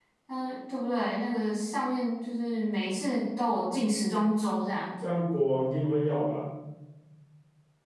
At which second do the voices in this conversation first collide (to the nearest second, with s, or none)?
none